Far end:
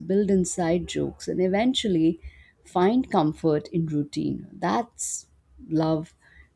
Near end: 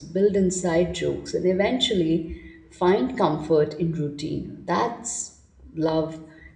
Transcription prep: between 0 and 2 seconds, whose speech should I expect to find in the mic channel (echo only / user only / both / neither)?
echo only